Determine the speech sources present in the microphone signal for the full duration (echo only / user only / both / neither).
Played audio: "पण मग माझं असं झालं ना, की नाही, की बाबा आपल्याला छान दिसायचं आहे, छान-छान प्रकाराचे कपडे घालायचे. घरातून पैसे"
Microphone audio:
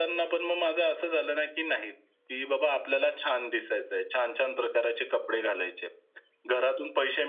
echo only